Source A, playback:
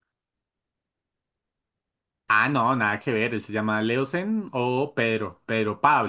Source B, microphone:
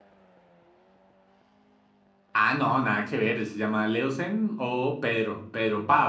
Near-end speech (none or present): none